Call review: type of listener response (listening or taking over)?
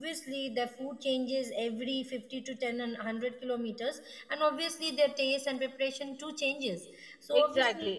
taking over